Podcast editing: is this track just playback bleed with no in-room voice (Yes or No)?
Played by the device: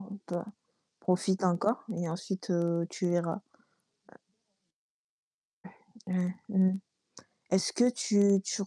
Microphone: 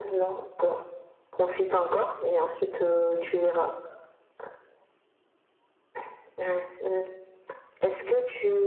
Yes